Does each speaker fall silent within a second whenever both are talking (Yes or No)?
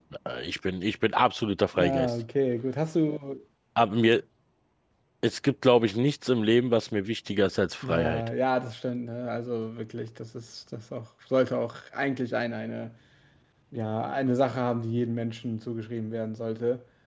Yes